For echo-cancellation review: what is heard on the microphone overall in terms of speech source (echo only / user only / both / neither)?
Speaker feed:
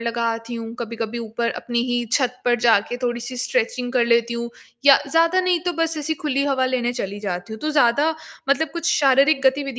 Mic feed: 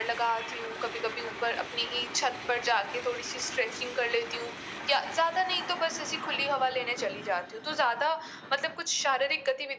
echo only